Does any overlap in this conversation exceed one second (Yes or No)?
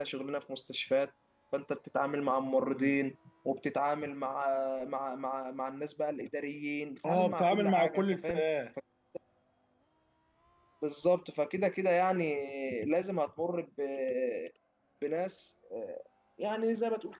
Yes